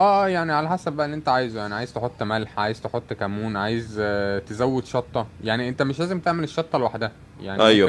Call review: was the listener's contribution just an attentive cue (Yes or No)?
Yes